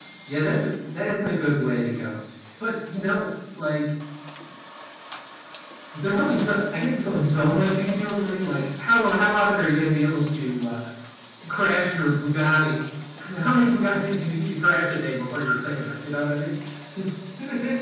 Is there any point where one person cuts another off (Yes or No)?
No